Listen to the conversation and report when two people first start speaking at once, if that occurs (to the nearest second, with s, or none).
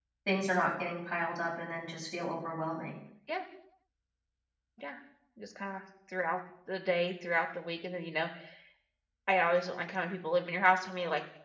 none